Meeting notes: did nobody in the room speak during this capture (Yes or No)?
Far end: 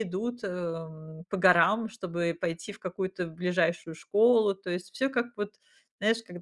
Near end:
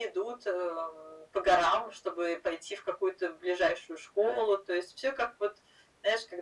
Yes